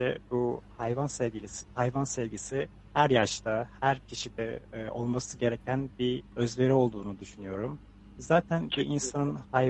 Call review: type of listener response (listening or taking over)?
listening